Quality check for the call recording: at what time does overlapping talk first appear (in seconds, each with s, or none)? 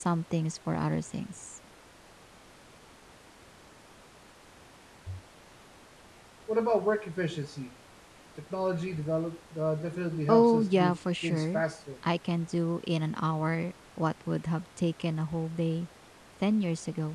10.3 s